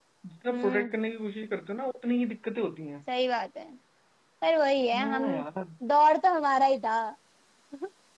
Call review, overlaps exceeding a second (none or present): none